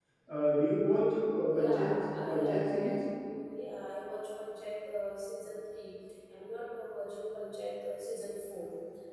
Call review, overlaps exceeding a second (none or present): present